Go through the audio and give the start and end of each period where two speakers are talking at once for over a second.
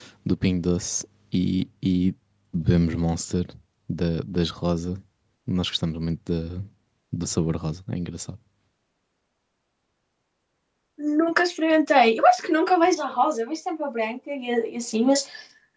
none

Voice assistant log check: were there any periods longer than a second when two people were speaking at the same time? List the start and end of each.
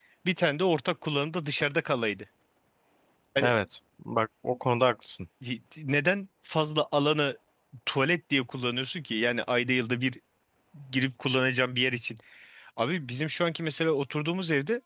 none

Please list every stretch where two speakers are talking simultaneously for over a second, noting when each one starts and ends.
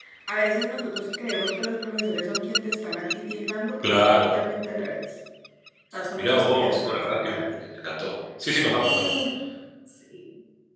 6.2-7.4

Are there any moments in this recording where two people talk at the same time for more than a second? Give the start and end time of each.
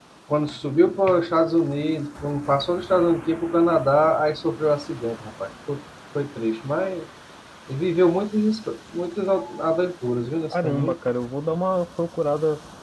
none

